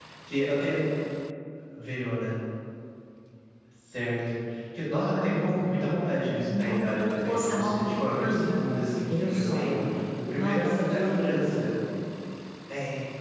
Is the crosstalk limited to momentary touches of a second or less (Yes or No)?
No